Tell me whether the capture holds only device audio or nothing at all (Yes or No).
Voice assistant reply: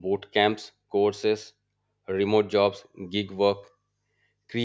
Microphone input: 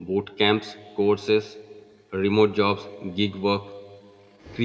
Yes